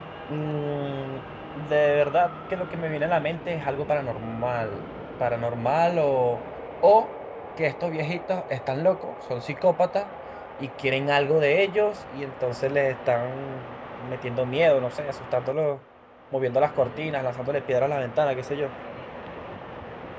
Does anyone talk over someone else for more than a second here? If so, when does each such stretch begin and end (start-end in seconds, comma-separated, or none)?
none